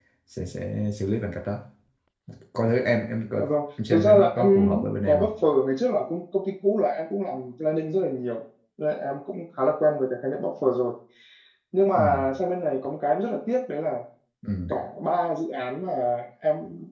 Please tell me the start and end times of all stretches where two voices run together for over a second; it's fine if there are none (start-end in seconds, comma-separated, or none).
3.9-5.3